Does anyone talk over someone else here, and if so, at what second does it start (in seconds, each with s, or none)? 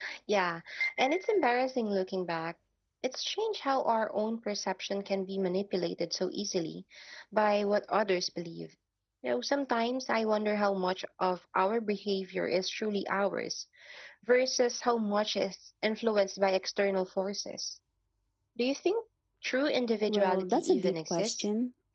20.1 s